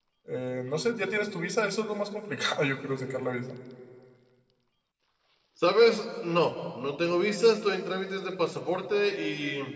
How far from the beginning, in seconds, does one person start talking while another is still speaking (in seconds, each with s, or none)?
none